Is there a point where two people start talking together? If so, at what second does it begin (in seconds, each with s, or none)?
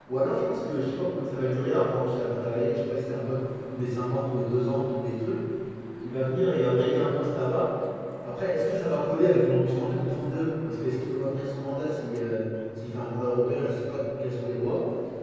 none